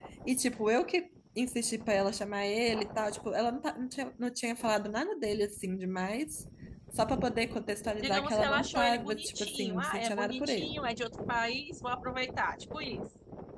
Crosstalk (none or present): present